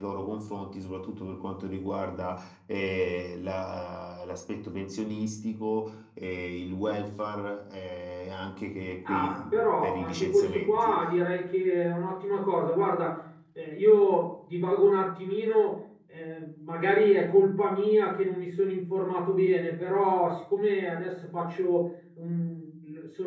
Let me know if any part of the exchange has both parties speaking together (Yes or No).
Yes